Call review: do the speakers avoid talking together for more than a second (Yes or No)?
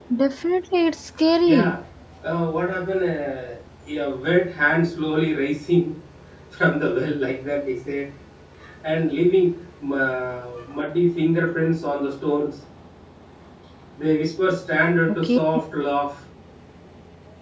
Yes